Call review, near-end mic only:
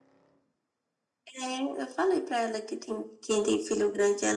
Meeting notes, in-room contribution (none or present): none